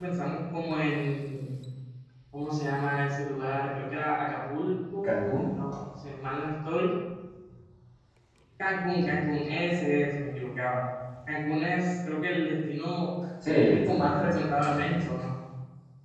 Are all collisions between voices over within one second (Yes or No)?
No